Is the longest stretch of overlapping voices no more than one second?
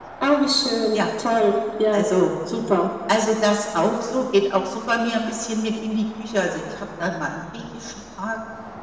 Yes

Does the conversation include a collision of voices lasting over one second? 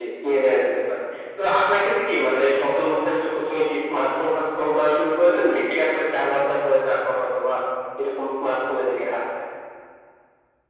No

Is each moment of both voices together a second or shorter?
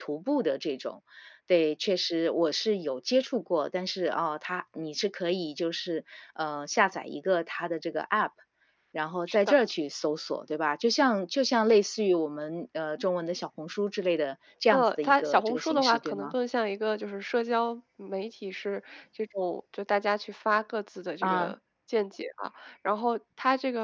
No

